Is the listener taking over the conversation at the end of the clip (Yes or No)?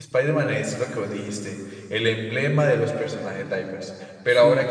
No